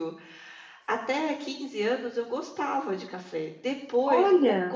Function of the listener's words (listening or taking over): listening